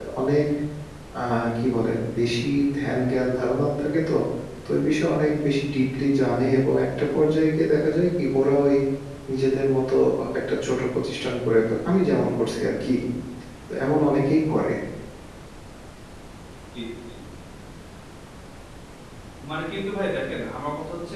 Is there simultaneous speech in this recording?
No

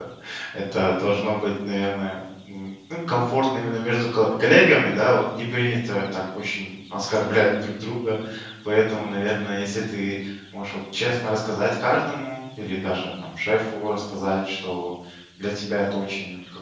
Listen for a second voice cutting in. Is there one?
No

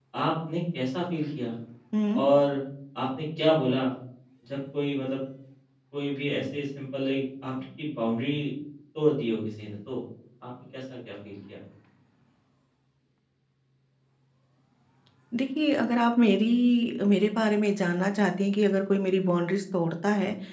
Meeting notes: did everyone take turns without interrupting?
Yes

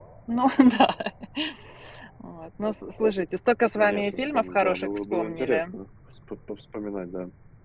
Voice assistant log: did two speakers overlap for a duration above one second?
Yes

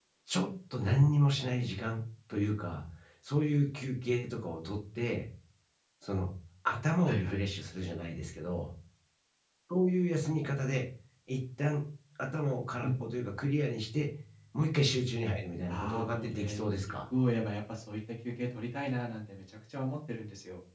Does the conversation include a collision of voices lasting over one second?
Yes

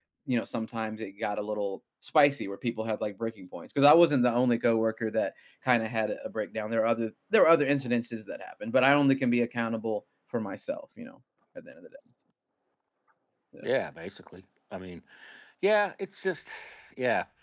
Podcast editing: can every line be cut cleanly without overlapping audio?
Yes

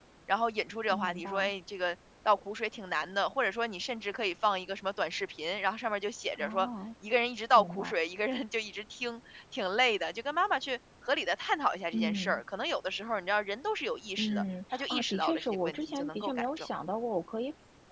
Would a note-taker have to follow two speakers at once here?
Yes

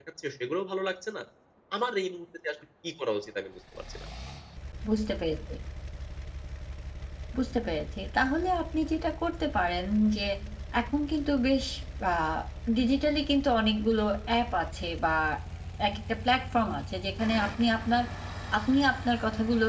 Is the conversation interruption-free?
Yes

